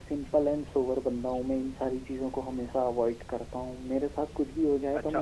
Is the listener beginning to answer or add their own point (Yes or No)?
Yes